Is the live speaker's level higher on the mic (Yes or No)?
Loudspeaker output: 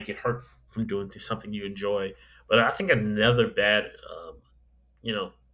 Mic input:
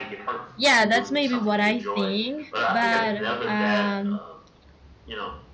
Yes